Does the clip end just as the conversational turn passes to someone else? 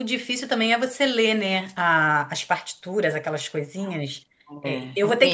No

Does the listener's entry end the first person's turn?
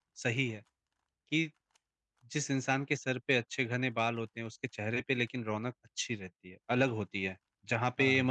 No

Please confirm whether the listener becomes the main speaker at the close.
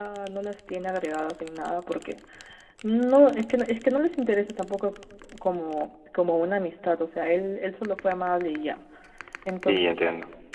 Yes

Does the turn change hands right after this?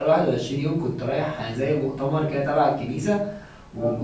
No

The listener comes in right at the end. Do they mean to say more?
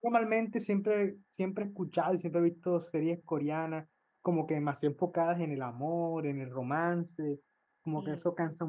No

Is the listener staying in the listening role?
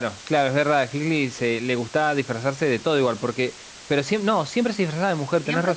No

